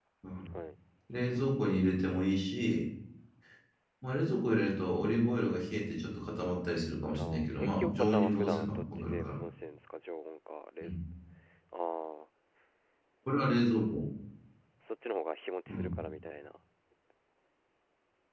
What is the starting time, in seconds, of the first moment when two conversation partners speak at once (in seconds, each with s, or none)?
7.2 s